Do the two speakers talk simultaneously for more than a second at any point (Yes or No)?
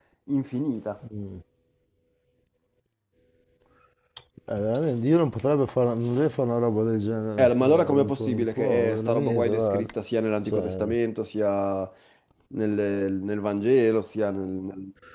Yes